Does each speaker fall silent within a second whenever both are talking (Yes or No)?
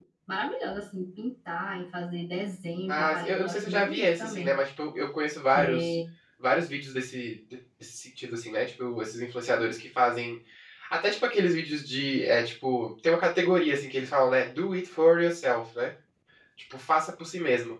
No